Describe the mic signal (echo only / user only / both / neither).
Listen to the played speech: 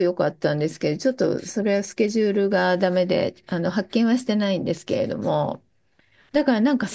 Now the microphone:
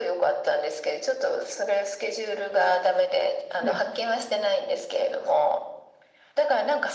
both